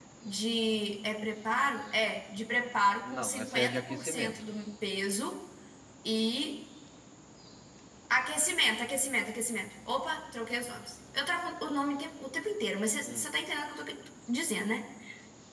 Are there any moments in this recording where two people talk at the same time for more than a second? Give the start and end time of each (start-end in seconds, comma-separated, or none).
3.0-4.3